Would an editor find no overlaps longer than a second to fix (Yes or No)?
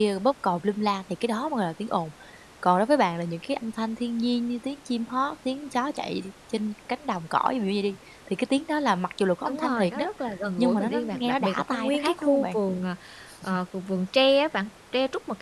No